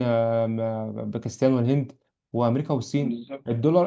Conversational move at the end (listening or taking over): listening